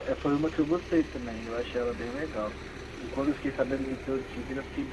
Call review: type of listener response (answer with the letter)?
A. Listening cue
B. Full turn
A